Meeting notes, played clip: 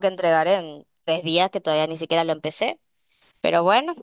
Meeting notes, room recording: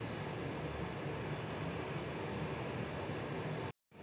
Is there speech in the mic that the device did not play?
No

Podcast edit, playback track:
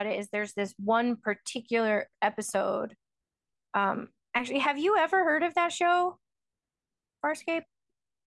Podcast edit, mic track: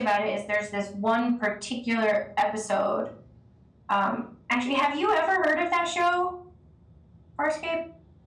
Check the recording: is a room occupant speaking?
No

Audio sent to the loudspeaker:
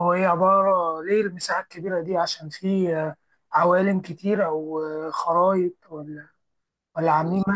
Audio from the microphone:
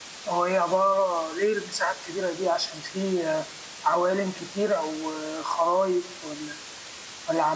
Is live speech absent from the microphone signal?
Yes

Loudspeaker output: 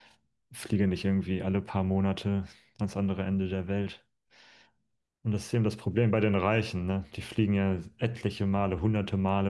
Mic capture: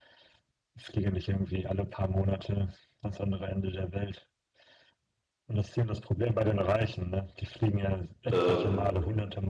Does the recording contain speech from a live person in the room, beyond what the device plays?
Yes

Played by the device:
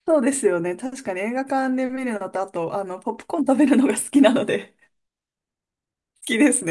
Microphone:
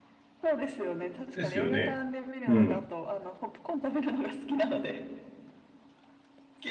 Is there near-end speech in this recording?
Yes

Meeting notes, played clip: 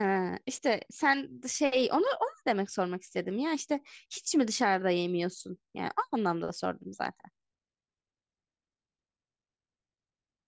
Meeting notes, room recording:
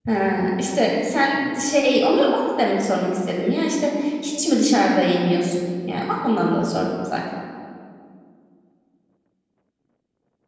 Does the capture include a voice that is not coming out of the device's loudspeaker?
No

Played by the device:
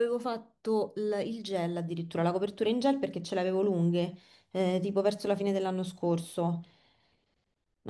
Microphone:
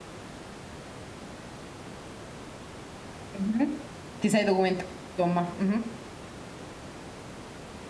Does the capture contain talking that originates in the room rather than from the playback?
Yes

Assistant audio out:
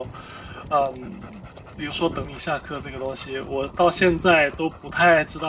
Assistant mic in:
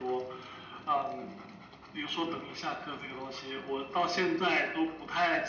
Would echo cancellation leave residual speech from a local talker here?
No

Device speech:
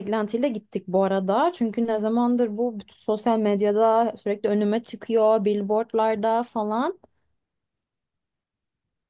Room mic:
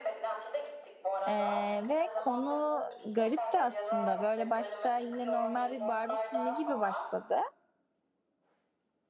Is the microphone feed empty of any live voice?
No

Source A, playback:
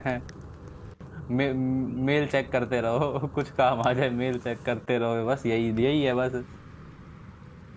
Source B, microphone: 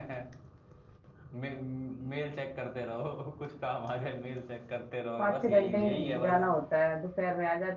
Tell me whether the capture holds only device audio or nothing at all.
No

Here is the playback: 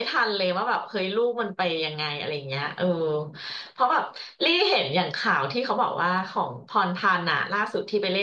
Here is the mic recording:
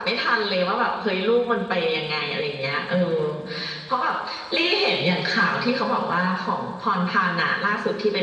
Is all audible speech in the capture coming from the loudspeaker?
Yes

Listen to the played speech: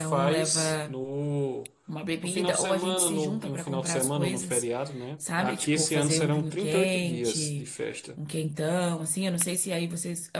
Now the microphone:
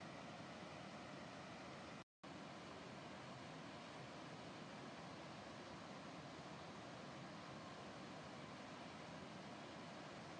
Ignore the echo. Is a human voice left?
No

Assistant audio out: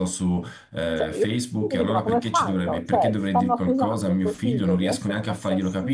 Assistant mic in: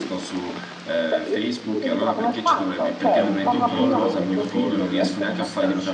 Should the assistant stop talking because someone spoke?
Yes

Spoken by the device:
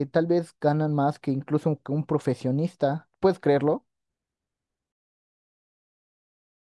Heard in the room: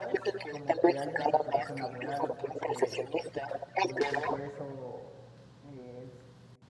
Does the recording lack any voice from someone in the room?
No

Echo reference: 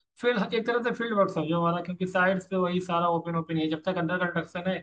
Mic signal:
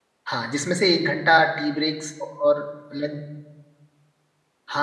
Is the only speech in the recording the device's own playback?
No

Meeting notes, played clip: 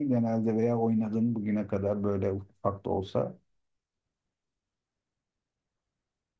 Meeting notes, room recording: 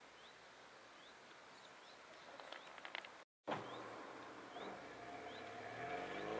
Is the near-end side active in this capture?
No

